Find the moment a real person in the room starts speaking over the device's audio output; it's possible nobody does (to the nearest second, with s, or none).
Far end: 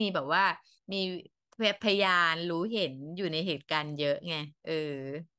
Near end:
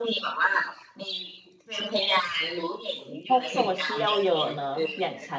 3 s